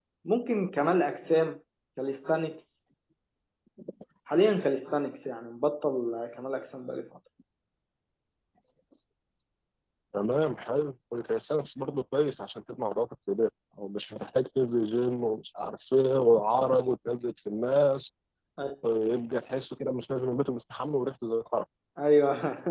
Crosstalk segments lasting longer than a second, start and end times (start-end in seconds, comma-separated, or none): none